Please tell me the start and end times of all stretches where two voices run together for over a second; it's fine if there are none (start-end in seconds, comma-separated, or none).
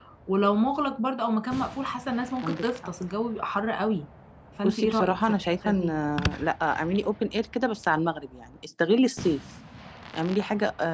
4.6-5.8